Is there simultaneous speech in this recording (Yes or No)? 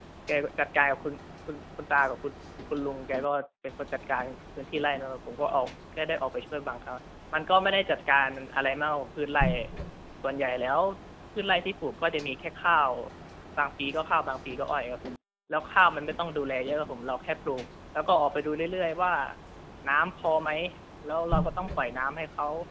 No